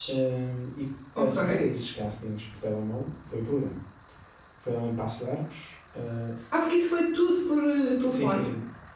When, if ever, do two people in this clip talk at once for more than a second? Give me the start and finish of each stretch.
none

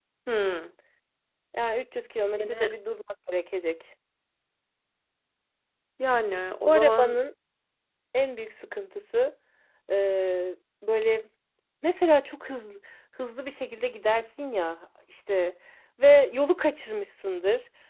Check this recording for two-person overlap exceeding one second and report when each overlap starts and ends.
none

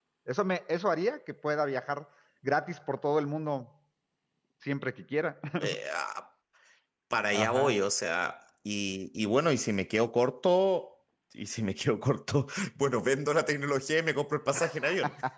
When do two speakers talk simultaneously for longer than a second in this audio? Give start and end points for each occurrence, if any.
none

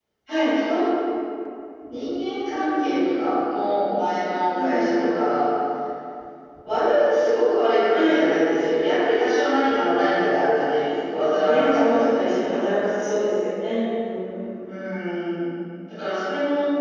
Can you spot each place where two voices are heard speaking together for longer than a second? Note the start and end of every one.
11.2-12.7

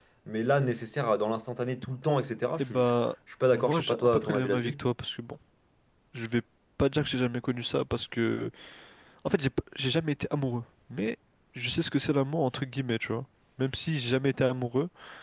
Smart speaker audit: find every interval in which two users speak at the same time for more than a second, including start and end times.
3.5-4.8

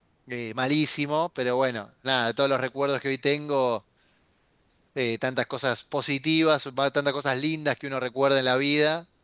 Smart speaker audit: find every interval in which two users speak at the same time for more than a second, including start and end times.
none

